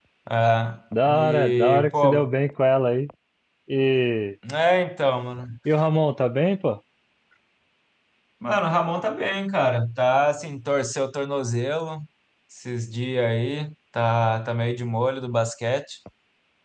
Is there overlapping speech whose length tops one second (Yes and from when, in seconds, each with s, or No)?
Yes, from 1.1 s